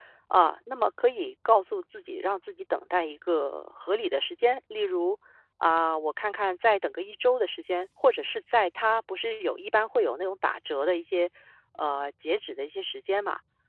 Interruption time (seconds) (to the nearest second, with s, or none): none